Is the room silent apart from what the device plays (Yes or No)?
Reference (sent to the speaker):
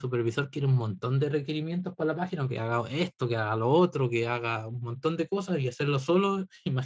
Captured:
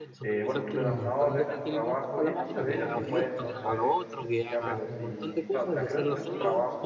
No